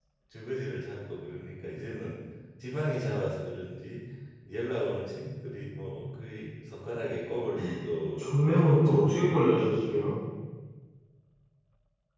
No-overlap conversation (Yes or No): No